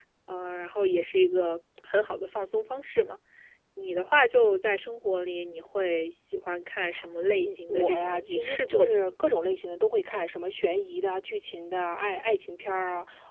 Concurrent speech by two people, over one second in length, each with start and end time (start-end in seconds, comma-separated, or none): 7.4-9.1